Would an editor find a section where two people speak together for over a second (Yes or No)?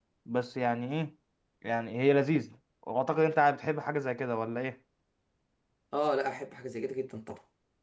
No